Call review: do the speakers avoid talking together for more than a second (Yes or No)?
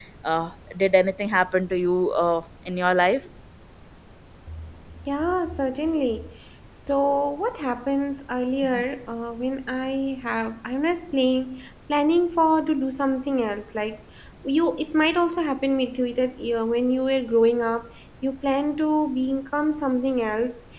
Yes